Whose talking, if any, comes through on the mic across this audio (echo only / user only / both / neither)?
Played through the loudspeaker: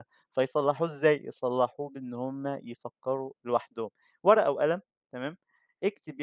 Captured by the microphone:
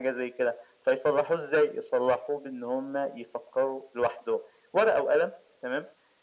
echo only